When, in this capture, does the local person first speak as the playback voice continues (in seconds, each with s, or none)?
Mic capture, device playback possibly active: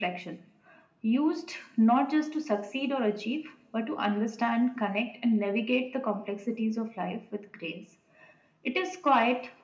none